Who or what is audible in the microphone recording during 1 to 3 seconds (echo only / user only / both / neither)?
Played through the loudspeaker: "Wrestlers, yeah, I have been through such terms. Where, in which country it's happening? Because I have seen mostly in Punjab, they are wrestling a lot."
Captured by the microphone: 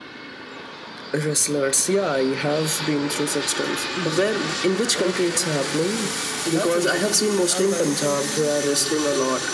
echo only